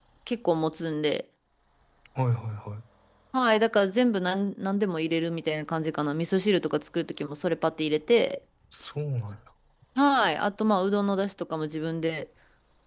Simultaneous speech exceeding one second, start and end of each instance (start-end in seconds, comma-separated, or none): none